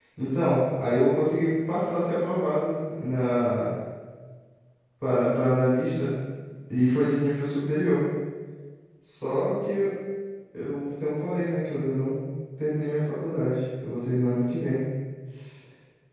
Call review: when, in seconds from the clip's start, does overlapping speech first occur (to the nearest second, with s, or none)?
none